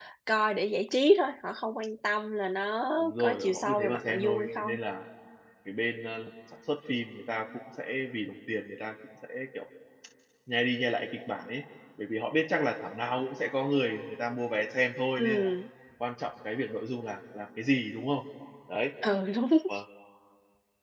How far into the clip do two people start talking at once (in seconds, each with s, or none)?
3.0 s